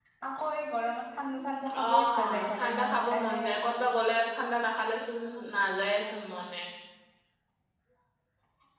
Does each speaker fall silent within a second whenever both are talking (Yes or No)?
No